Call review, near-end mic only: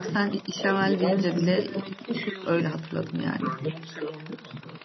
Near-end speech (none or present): present